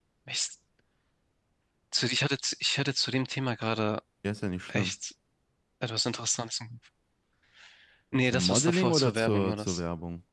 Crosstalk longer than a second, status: present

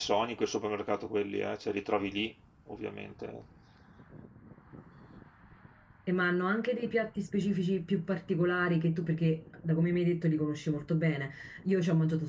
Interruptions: none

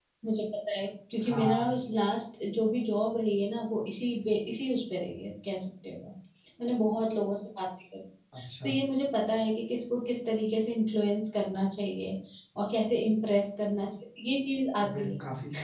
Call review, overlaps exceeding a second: none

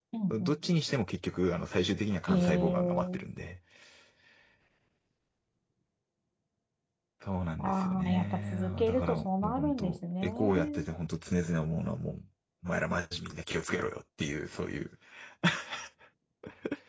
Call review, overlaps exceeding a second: present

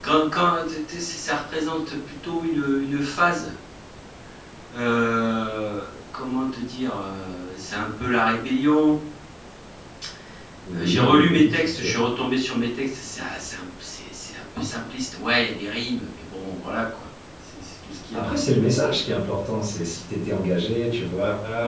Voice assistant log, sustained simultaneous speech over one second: present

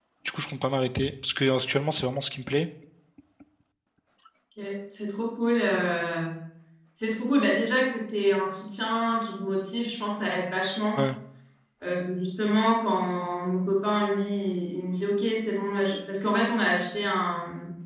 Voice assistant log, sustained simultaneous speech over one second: none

